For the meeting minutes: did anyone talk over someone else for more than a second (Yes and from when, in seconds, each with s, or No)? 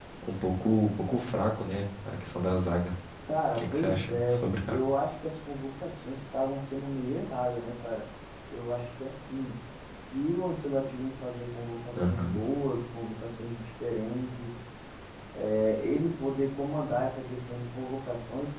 Yes, from 3.5 s